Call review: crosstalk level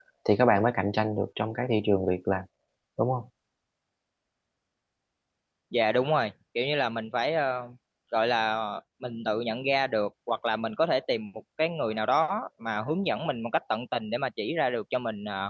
none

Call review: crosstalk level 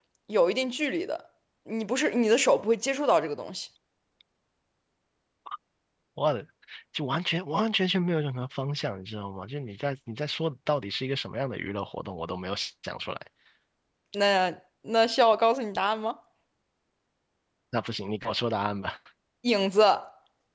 none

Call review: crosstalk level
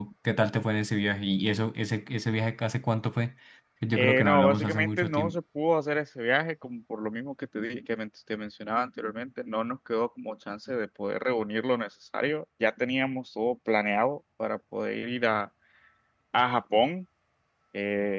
present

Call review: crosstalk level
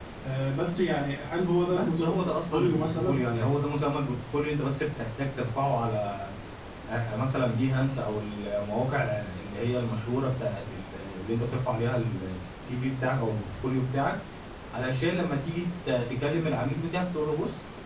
present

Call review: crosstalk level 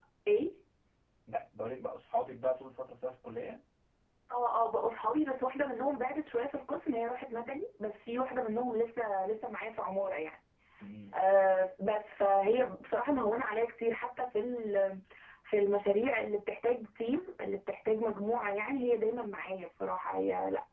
none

